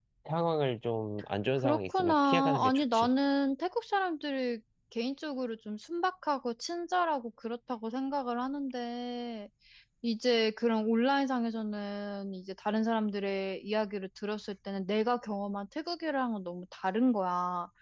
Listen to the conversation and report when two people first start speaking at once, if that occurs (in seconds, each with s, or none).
1.5 s